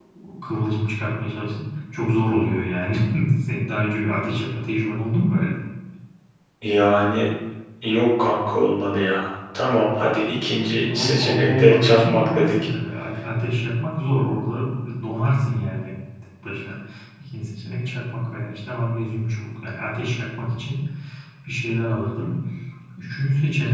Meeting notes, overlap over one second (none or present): present